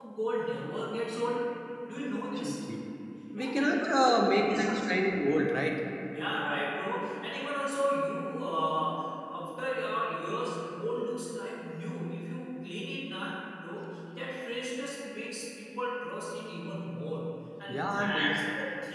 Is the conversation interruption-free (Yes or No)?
No